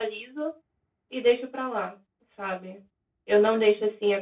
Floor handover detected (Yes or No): No